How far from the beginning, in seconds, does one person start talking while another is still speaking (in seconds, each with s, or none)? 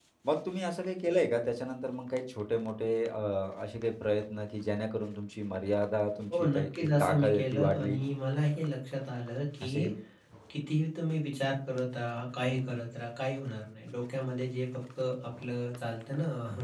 6.3 s